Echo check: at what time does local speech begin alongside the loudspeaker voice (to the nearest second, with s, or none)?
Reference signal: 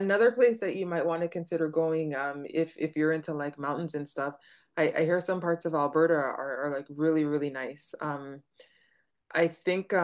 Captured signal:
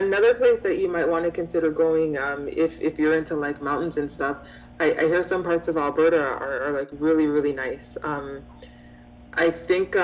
none